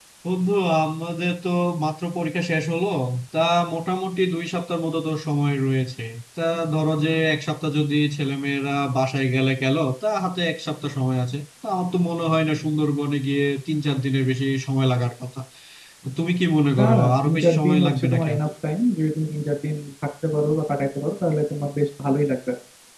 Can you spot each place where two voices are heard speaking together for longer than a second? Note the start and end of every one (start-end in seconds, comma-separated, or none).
16.8-18.4